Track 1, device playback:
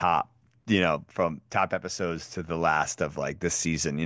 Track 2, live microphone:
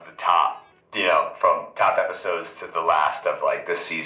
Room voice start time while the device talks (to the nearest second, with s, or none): none